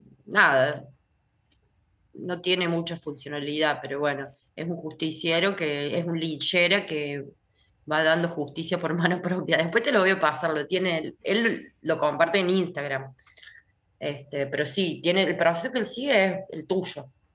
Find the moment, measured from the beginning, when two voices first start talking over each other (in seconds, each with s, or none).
none